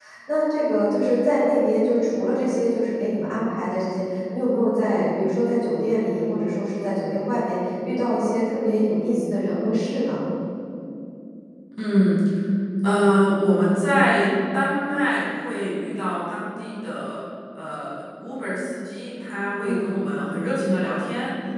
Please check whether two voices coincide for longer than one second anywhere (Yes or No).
No